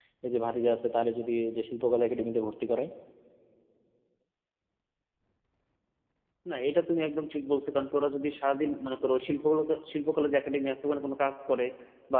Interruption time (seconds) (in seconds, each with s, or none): none